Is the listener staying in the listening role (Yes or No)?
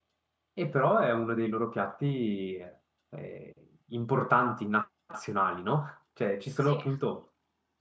Yes